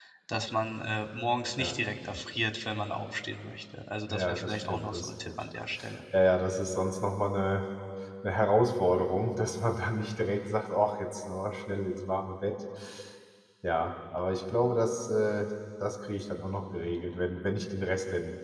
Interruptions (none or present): present